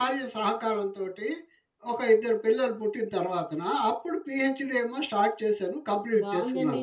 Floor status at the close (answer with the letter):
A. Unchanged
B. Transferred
B